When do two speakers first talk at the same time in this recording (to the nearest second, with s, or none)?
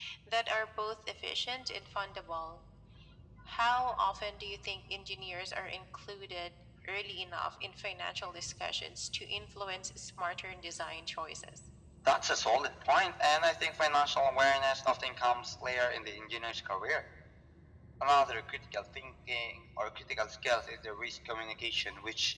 none